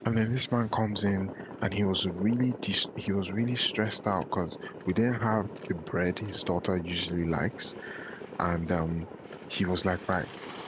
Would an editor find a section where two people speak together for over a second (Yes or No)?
No